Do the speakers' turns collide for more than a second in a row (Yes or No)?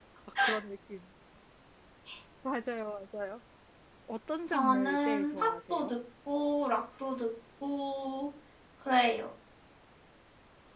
Yes